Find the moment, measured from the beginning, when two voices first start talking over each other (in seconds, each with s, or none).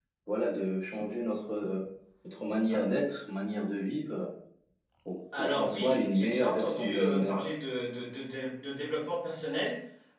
5.4 s